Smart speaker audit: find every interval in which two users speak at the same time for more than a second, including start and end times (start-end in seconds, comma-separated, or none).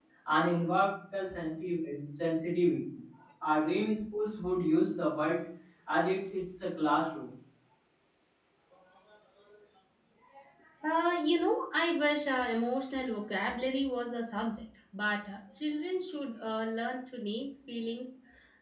none